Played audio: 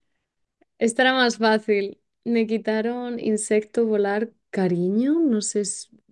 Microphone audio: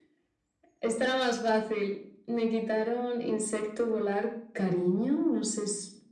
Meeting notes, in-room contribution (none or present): none